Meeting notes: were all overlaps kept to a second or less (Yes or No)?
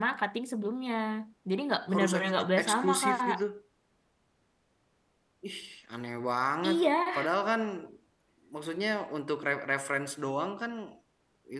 No